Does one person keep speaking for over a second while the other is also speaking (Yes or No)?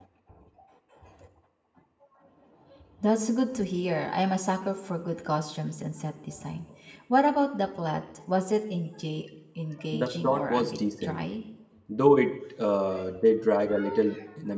Yes